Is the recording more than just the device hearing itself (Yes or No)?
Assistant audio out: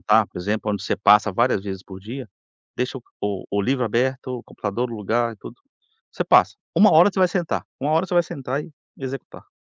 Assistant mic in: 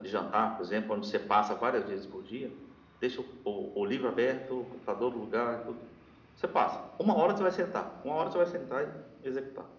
No